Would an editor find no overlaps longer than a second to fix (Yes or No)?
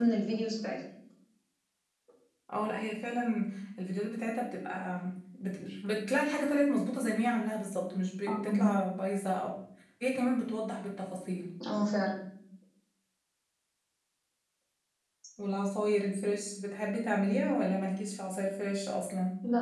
Yes